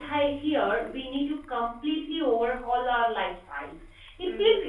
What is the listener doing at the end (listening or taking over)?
listening